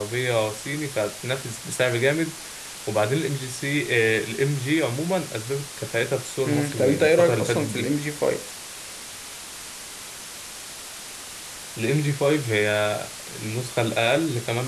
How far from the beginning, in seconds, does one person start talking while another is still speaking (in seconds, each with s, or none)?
6.4 s